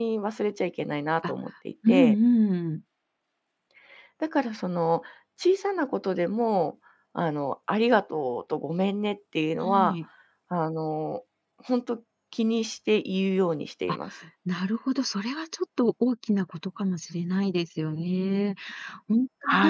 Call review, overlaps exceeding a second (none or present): none